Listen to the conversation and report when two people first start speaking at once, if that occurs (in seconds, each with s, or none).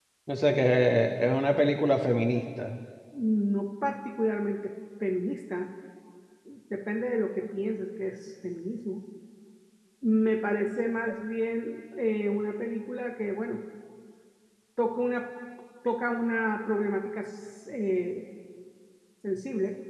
none